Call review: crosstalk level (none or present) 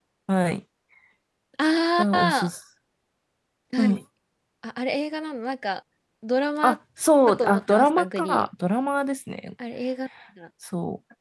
present